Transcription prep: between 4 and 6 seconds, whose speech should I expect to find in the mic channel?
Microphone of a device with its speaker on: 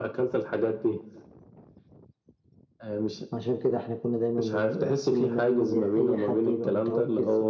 echo only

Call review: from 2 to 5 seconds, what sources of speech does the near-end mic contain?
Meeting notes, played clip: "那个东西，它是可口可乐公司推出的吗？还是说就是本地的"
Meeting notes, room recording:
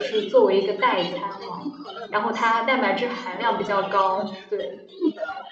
both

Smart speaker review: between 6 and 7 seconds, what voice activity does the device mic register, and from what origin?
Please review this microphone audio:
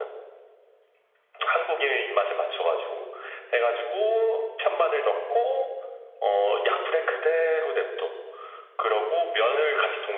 echo only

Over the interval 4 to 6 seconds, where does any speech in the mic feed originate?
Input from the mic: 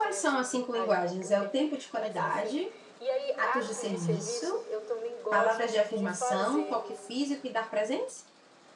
both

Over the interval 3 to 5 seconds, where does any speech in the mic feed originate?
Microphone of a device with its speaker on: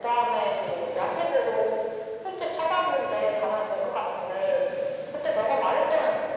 echo only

